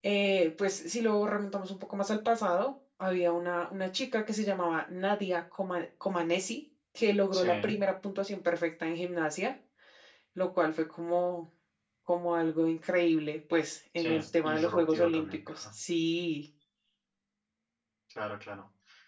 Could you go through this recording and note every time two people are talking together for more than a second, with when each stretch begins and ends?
14.0-15.6

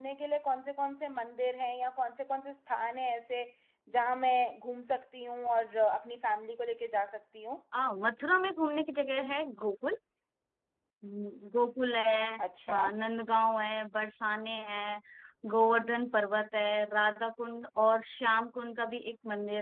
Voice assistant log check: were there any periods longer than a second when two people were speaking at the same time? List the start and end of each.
none

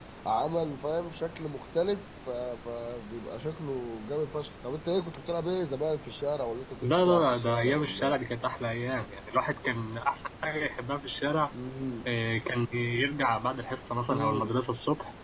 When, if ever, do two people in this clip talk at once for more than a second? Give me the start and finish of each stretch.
6.8-8.2

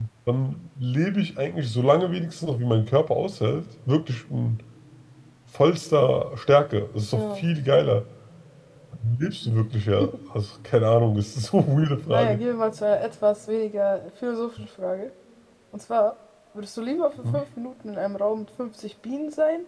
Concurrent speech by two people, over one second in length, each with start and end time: none

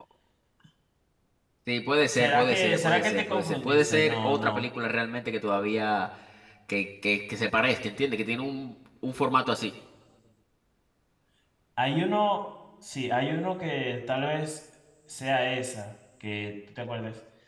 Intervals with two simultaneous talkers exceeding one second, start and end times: 2.1-4.6

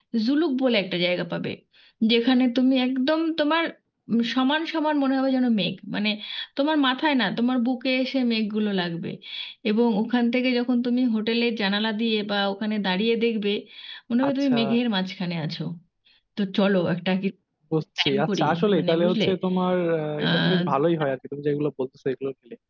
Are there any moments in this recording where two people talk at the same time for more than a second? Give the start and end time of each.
18.0-19.2

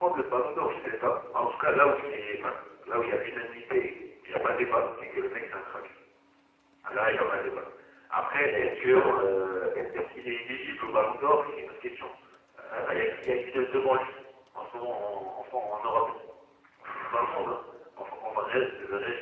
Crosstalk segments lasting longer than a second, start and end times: 8.2-9.4

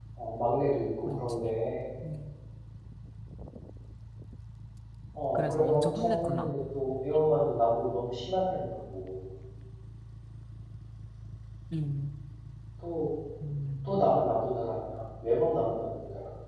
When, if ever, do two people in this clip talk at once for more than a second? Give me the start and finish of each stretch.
5.3-6.5

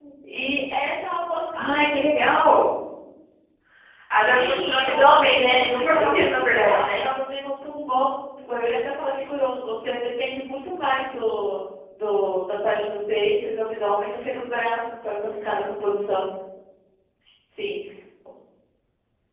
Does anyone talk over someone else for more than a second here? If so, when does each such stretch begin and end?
4.3-7.0

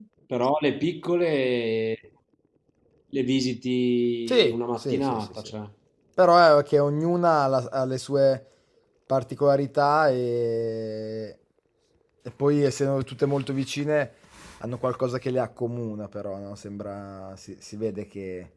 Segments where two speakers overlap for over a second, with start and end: 4.3-5.5

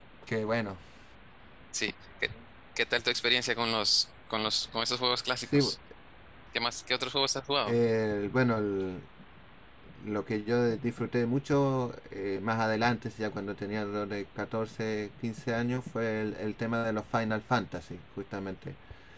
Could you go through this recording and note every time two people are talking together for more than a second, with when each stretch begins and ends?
none

